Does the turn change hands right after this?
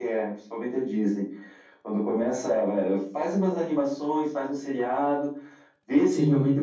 No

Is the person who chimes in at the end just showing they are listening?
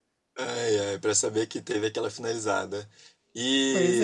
Yes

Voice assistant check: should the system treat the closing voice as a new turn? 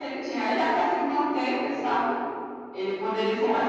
No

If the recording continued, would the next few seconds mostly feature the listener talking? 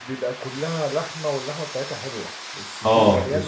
Yes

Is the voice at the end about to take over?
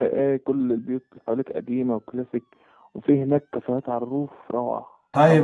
Yes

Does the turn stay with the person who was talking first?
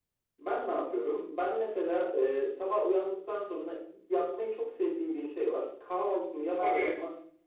Yes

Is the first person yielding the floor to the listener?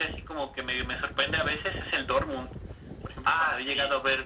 No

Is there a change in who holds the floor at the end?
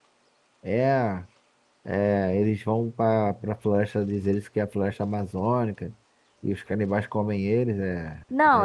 Yes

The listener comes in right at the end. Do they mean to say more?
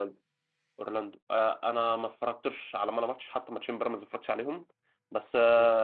No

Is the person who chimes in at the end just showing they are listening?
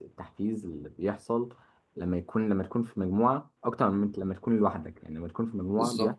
Yes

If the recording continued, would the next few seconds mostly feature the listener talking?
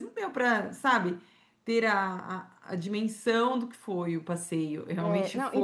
Yes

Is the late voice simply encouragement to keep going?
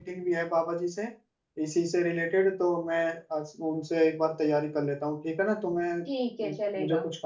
No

